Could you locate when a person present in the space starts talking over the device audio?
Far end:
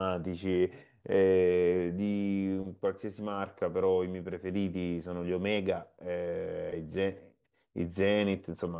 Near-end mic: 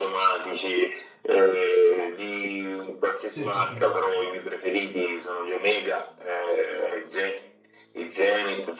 3 s

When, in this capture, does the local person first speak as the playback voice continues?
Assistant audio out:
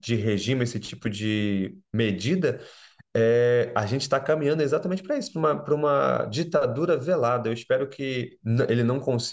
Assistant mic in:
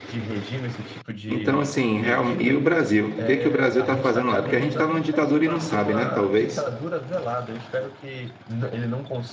1 s

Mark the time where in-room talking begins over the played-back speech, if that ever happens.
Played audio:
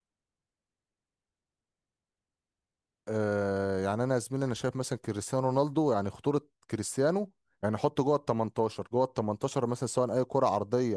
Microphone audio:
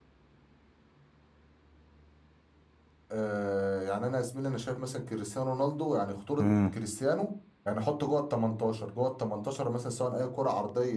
6 s

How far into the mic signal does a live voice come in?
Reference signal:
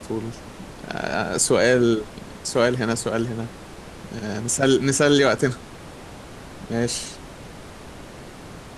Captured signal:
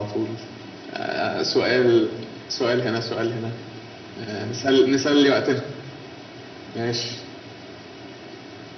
none

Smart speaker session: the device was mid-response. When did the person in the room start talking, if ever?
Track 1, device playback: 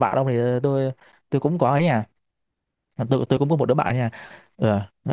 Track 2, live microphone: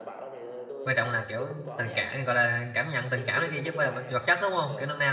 1 s

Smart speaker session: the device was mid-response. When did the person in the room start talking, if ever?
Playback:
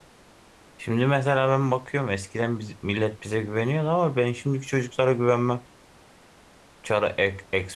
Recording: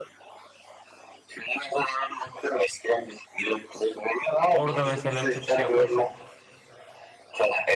4 s

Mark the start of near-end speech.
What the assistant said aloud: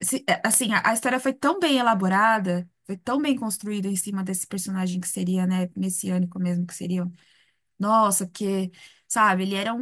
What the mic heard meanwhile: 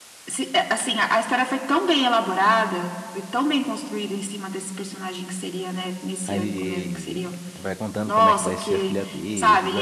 6 s

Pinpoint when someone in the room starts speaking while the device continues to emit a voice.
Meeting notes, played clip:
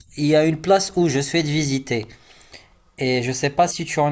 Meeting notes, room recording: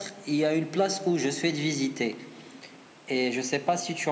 none

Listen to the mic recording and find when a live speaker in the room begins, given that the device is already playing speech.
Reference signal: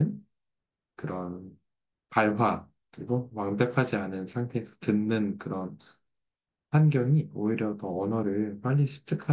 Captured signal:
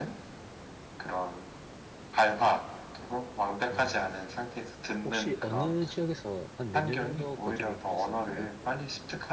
4 s

